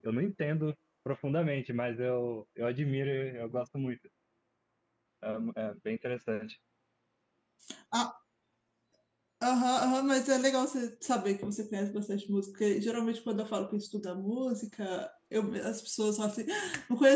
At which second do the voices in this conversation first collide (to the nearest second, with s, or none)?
none